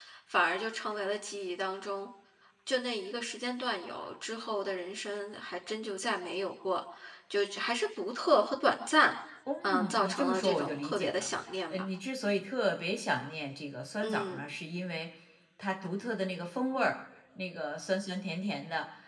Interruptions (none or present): present